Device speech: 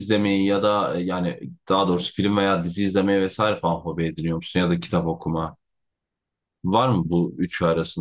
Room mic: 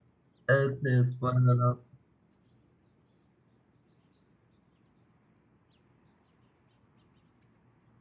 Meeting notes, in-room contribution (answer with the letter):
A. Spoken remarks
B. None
A